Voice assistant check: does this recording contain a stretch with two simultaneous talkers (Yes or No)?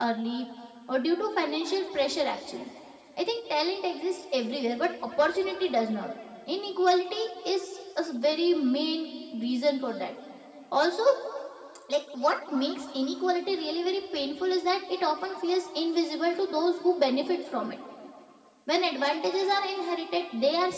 No